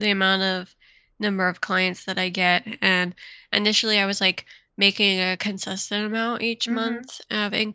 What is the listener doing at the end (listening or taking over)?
listening